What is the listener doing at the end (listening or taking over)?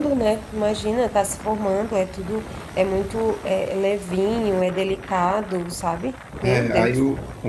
taking over